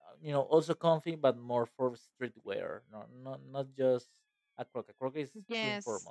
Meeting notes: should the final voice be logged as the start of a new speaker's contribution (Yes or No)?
Yes